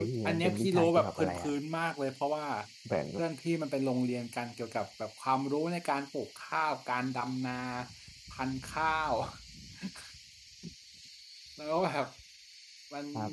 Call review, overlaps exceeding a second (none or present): present